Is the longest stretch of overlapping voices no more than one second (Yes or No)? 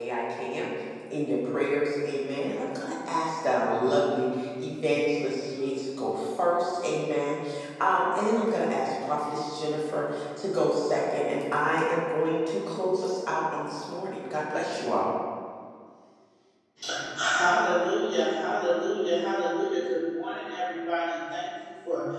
Yes